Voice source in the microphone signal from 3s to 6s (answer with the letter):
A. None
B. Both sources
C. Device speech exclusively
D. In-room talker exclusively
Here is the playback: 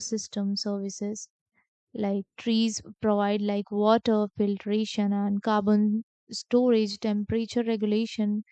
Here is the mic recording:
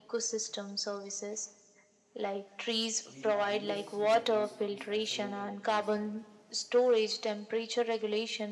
B